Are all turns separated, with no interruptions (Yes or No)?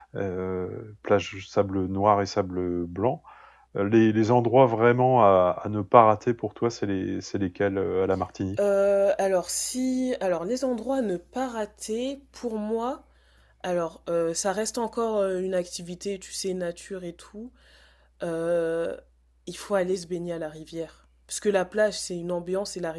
Yes